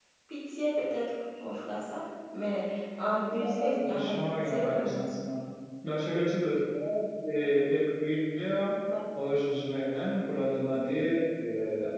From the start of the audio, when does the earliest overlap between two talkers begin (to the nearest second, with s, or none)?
3 s